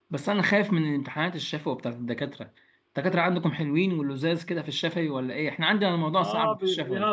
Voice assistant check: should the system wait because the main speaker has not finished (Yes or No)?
No